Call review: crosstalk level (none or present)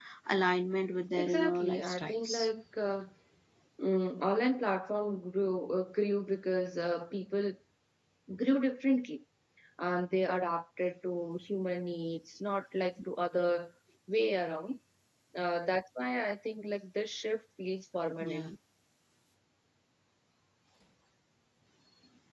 present